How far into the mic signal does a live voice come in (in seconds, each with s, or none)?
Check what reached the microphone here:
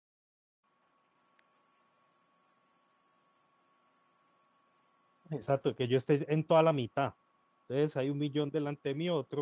5.3 s